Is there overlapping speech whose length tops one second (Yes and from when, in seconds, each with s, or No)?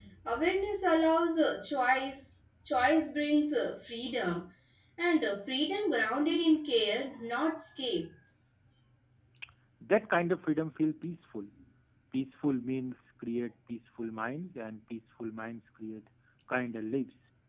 No